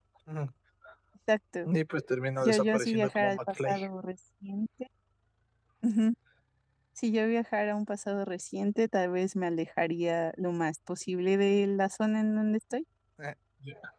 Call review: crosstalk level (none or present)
present